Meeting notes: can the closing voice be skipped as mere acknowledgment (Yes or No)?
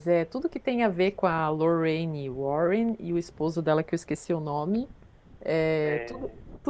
Yes